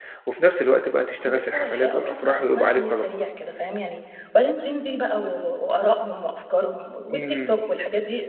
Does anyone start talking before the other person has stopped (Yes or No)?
Yes